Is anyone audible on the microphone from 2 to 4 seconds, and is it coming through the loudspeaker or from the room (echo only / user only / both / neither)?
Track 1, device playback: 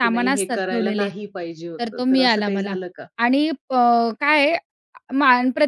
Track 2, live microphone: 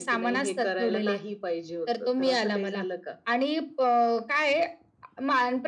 echo only